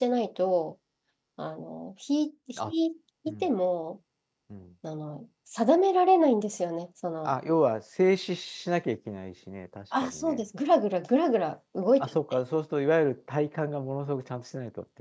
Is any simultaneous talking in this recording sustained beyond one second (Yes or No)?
No